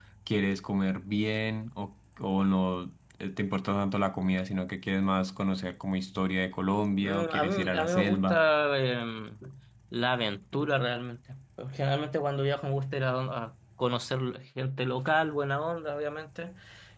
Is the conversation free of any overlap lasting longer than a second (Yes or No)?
No